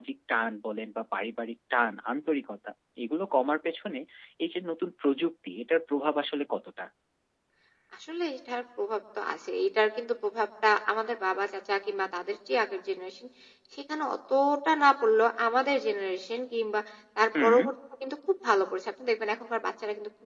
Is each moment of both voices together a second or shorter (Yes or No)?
Yes